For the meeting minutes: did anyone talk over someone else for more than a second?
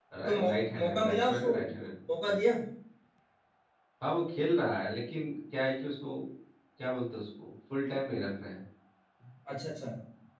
Yes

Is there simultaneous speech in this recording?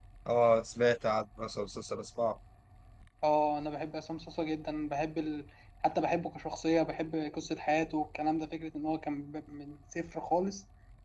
No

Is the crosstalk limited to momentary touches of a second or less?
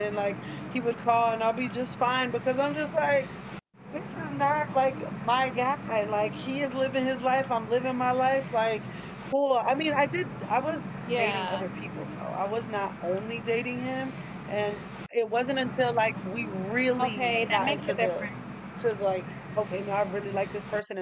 No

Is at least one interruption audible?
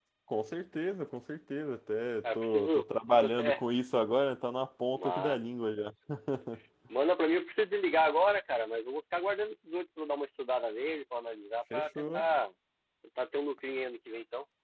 Yes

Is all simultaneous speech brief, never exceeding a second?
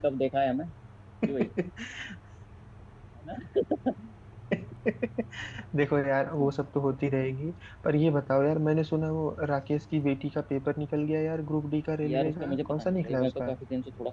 No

